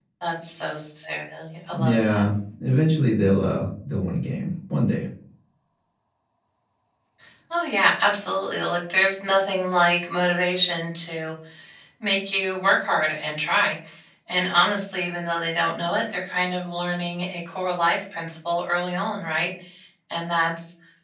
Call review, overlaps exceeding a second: none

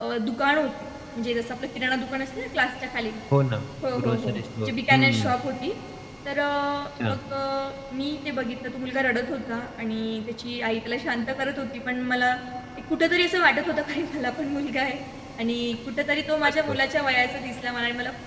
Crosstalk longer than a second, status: present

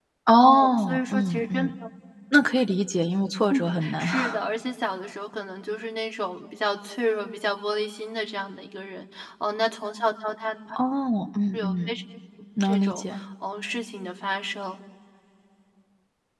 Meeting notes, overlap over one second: present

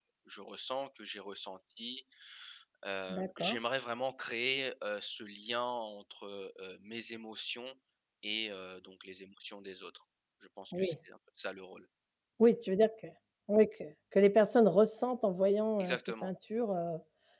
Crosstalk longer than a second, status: none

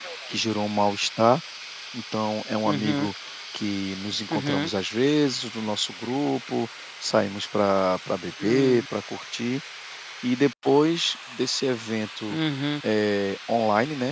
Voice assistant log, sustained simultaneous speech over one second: none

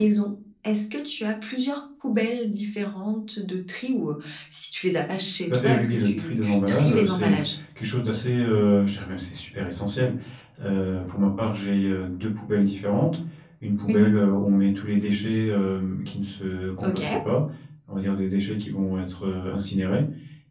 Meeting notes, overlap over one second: present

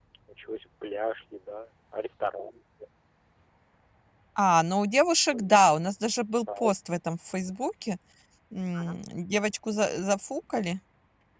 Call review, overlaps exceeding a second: none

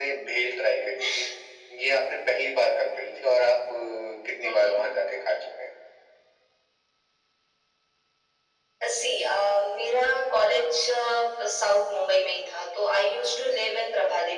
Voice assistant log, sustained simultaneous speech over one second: none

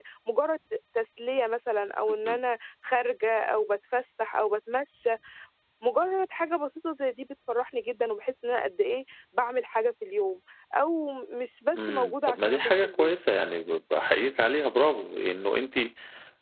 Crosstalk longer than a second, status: present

